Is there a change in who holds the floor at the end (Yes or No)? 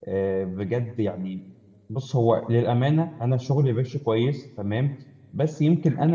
No